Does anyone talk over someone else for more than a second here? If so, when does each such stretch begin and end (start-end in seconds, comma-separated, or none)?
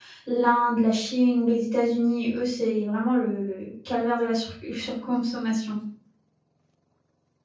none